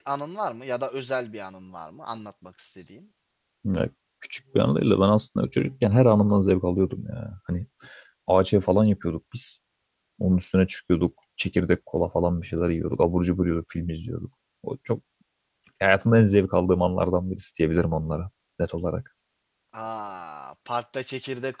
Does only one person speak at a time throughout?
Yes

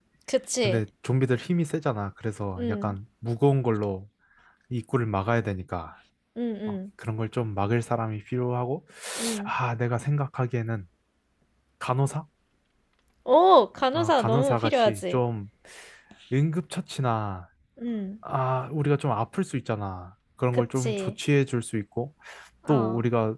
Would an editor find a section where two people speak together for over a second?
Yes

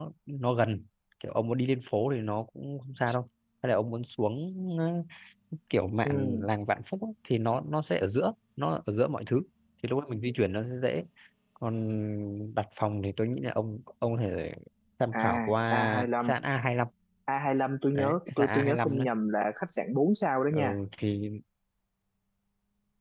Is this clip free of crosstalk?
No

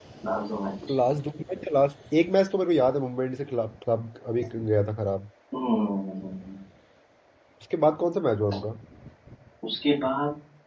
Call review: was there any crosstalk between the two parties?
No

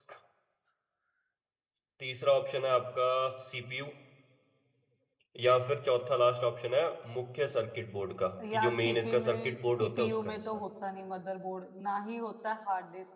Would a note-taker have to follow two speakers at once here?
Yes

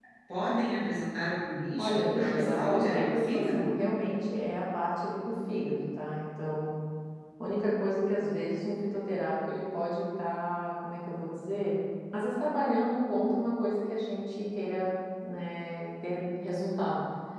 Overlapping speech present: Yes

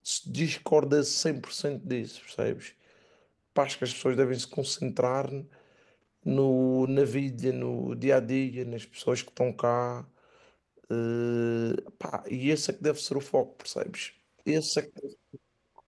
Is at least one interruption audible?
No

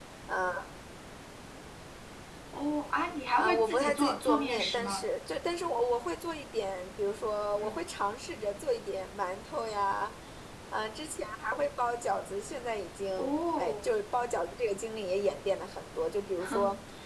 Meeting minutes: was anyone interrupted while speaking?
Yes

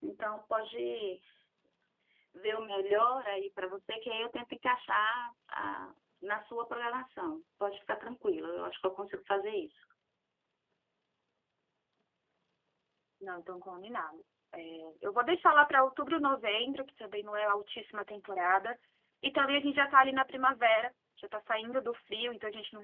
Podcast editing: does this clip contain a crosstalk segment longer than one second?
No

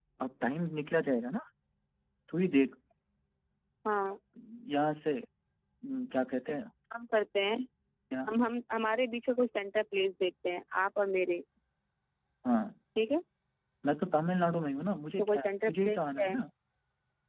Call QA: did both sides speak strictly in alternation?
No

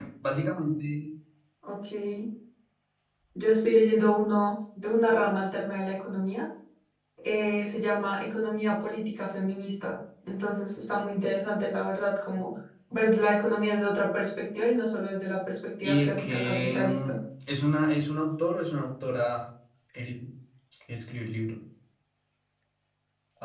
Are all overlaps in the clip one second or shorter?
No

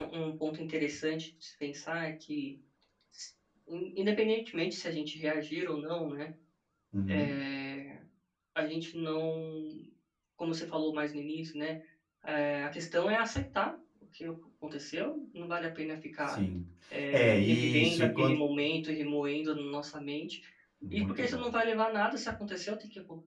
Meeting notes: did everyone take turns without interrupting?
No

